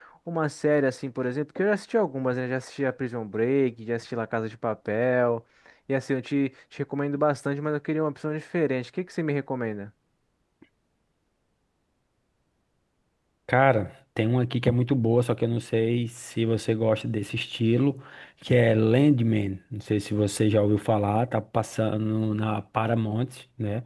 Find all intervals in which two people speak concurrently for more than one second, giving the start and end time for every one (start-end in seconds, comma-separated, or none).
none